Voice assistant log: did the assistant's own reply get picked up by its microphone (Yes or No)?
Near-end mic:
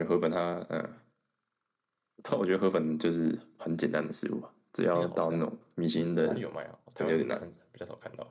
Yes